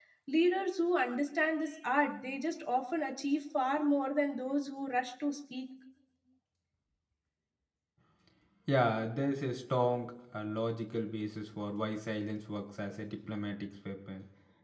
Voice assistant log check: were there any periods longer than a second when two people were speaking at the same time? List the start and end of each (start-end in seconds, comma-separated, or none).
none